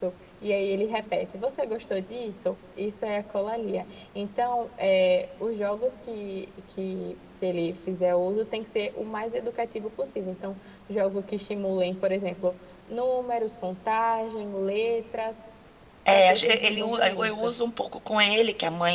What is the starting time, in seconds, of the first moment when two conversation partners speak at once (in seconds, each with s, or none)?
16.1 s